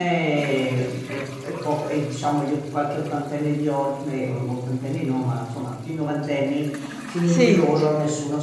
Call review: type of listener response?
listening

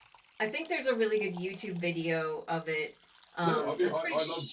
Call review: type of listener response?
taking over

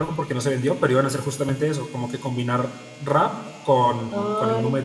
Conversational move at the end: taking over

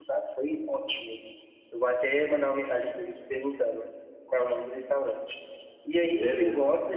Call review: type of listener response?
listening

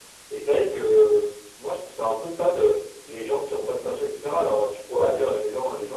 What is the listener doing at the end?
listening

